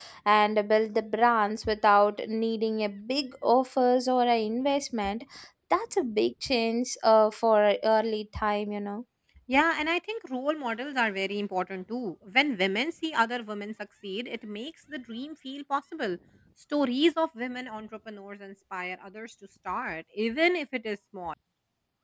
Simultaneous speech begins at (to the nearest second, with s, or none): none